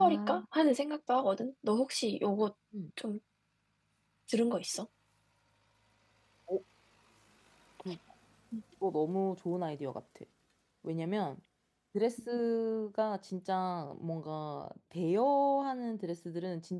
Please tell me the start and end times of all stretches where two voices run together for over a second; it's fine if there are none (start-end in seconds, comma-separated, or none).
none